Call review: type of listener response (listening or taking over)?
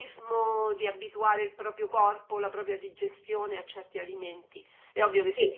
listening